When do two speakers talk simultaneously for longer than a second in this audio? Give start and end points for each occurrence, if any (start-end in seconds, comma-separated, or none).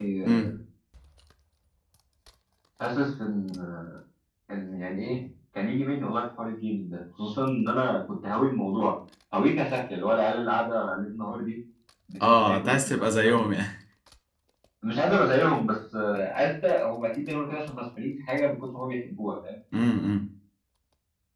12.2-13.4